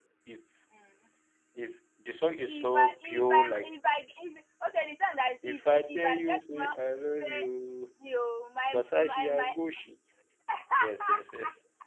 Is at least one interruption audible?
Yes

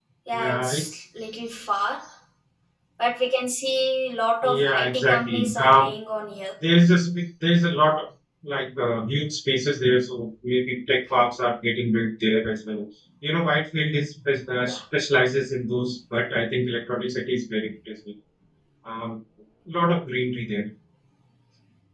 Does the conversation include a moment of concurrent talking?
Yes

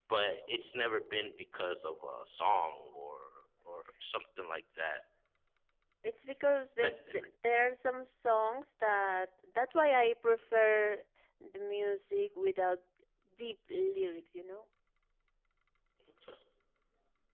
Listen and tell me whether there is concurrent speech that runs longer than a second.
No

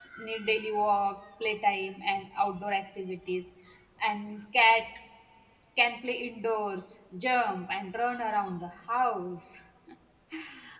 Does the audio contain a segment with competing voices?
No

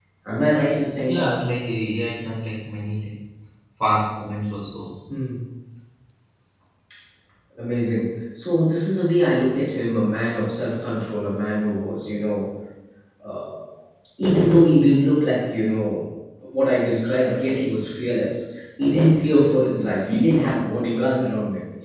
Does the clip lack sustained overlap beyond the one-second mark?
Yes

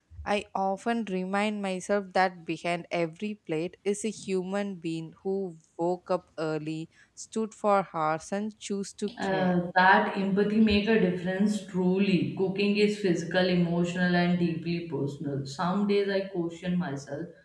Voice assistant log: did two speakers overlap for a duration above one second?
No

